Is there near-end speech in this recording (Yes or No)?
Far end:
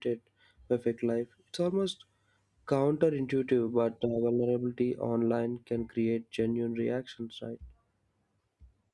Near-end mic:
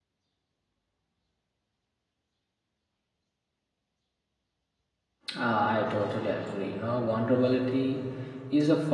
Yes